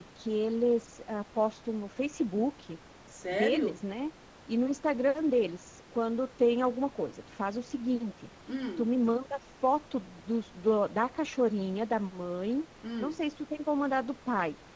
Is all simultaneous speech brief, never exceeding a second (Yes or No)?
Yes